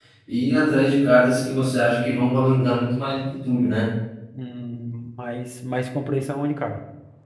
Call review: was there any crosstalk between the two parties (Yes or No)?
No